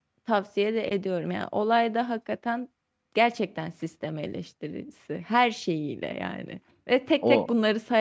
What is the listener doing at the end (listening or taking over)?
listening